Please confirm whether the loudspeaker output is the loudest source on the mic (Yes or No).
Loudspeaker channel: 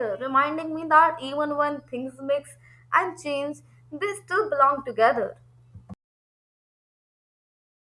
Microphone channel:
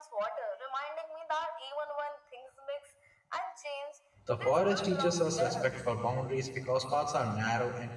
No